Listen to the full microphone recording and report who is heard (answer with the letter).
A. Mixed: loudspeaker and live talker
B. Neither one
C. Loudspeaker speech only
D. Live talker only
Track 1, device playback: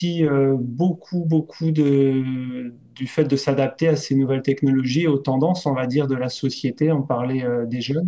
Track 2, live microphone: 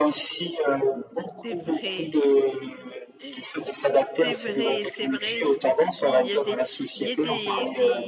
A